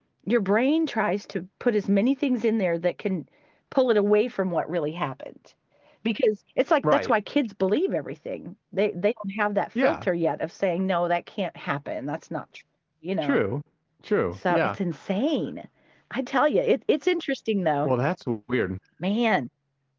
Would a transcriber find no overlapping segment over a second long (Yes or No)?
Yes